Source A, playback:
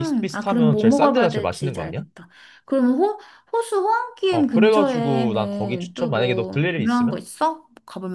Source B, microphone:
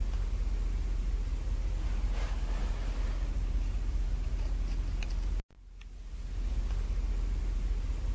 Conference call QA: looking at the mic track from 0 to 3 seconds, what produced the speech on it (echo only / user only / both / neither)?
neither